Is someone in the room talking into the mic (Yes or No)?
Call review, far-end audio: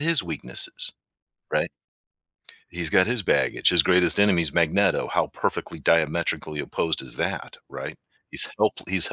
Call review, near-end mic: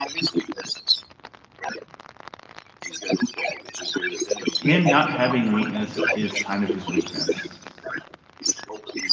Yes